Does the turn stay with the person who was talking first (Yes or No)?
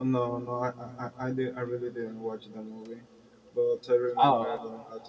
Yes